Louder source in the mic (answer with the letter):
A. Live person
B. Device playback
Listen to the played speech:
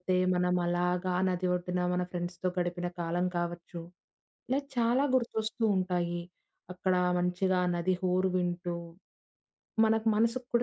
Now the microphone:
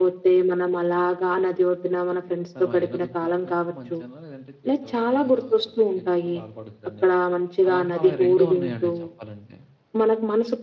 B